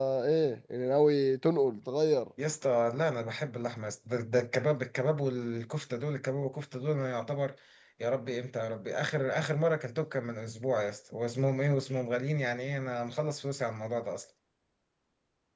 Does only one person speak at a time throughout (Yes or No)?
Yes